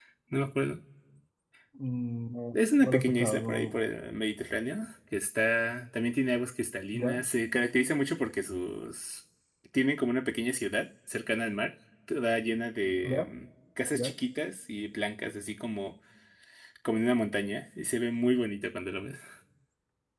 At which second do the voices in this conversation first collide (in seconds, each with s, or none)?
2.5 s